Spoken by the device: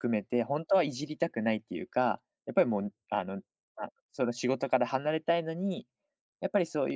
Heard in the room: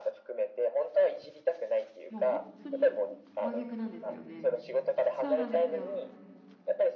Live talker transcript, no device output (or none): もう本当に真逆なんですよね。そうなんですよ。